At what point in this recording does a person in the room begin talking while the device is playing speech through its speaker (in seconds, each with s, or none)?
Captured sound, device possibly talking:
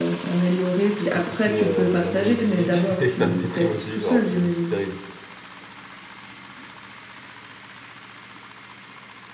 1.1 s